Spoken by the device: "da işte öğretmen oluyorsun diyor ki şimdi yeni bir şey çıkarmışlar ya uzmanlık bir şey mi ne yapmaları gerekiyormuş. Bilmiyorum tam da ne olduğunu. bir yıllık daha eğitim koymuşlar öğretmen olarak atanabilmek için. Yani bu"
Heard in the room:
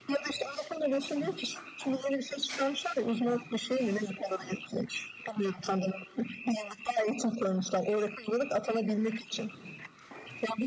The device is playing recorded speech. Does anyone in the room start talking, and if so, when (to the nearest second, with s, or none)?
none